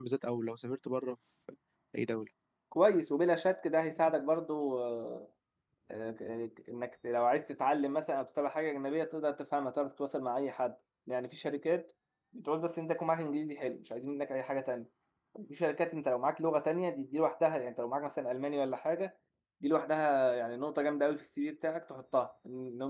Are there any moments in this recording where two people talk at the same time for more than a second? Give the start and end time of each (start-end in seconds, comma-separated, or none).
none